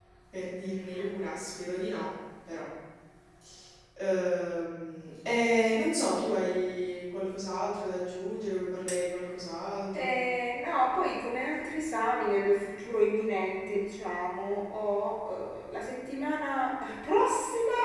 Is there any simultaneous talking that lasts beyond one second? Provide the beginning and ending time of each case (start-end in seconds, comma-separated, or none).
none